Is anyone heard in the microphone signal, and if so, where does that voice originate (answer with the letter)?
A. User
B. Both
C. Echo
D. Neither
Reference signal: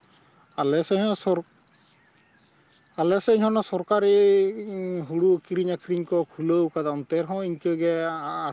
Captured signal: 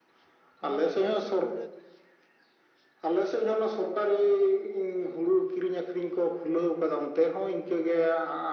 B